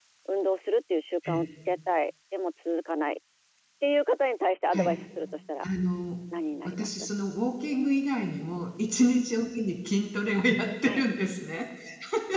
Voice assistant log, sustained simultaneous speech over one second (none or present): none